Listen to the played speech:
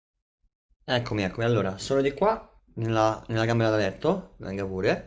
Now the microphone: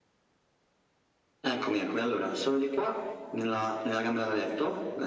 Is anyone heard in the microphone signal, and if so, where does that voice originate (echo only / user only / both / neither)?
echo only